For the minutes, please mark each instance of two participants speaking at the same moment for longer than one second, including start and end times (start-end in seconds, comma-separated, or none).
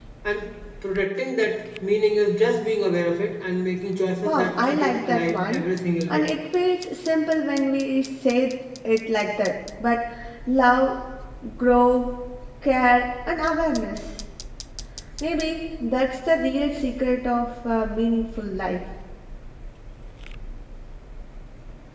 4.2-5.6